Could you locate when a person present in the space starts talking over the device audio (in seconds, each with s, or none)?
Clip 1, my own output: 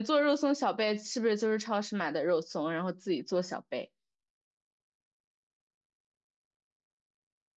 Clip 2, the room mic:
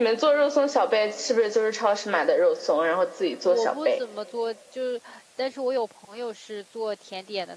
3.4 s